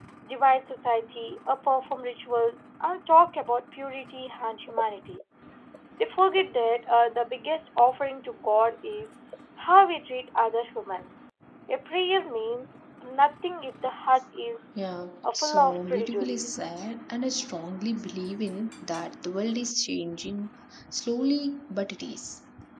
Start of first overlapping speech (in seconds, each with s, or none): 15.3 s